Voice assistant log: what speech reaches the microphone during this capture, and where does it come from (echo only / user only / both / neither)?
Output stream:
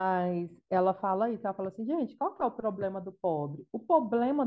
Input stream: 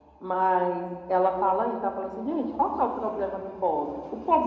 echo only